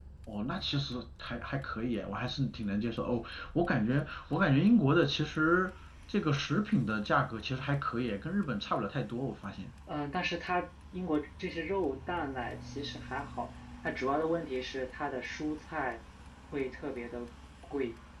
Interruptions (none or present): none